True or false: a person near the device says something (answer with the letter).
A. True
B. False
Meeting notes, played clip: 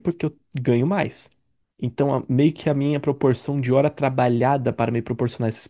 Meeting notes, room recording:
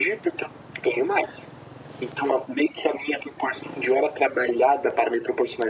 B